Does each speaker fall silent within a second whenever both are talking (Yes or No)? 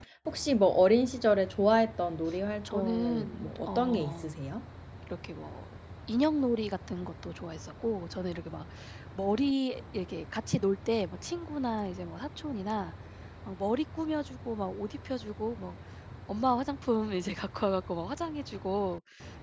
No